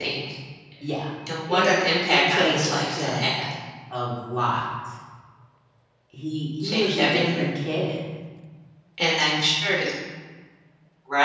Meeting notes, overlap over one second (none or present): present